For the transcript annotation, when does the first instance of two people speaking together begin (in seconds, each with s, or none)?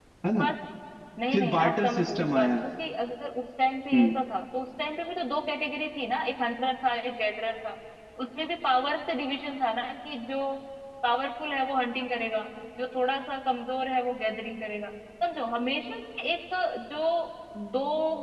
1.3 s